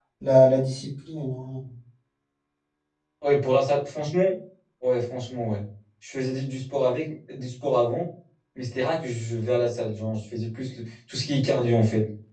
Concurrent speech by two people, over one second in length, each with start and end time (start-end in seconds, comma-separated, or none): none